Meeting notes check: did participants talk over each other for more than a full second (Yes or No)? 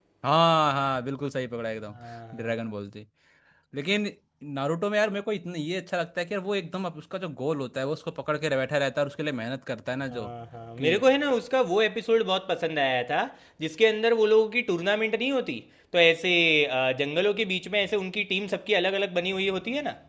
No